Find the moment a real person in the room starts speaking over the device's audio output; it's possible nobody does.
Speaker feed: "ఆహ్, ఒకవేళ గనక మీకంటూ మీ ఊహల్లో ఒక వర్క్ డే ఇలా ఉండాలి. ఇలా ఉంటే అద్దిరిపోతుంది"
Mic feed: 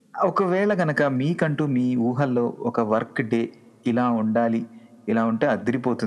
none

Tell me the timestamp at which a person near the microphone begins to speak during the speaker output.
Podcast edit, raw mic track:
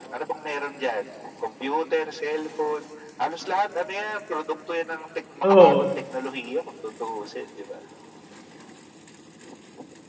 5.4 s

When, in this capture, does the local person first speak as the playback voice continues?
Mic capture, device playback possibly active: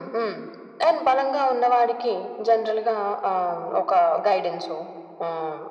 none

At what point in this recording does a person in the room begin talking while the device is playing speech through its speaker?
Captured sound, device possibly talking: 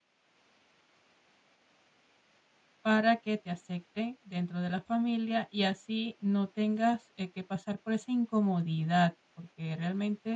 2.8 s

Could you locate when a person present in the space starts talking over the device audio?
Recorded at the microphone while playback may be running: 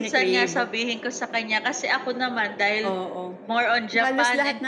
none

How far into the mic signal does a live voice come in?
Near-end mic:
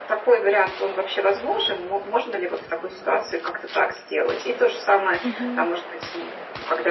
5.2 s

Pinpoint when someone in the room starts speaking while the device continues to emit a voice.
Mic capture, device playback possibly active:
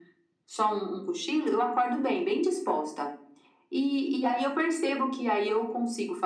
none

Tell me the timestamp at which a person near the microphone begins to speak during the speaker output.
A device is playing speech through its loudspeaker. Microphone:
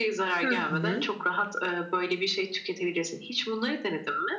0.4 s

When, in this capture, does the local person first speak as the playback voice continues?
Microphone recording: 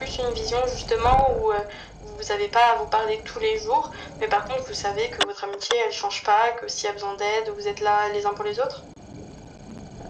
none

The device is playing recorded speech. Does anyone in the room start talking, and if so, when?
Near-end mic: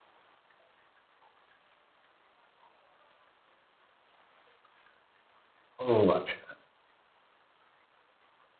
5.9 s

